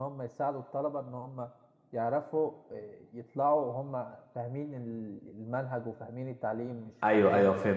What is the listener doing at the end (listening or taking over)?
taking over